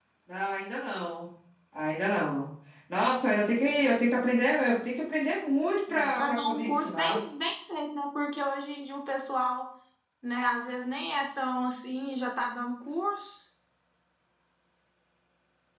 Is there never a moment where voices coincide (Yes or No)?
No